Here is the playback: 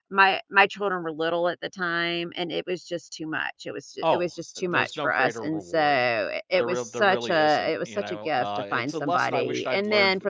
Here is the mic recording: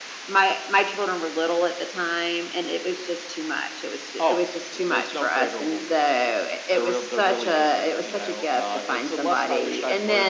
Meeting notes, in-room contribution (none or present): none